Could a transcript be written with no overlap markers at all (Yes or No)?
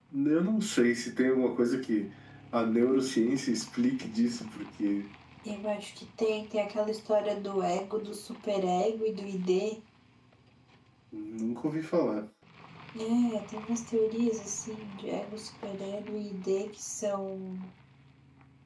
Yes